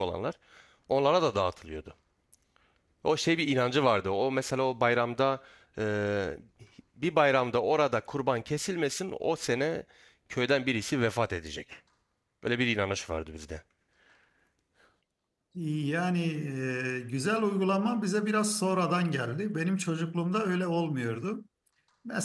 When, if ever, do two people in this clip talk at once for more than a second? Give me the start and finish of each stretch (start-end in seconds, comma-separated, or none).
none